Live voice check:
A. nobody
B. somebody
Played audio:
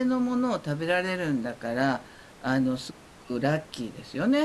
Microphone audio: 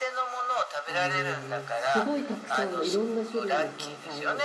B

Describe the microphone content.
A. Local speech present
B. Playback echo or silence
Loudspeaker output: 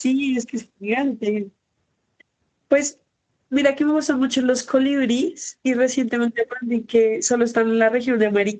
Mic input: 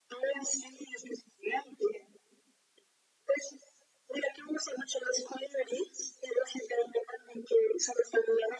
B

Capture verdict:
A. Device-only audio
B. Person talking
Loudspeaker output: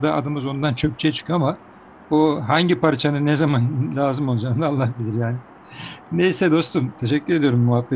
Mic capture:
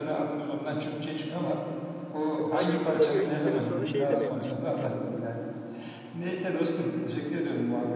B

